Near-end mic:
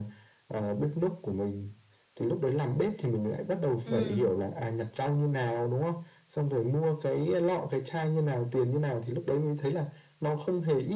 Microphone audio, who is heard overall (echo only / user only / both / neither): both